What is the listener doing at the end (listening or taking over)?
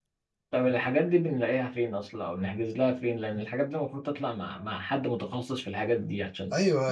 taking over